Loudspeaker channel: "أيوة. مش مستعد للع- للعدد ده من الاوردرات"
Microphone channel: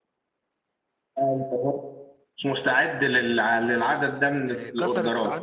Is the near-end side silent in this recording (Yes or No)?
No